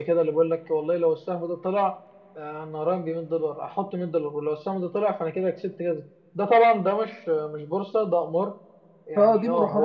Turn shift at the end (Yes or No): No